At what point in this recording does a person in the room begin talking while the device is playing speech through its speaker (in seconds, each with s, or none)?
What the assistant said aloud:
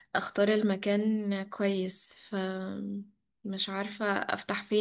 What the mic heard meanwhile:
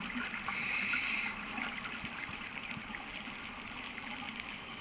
none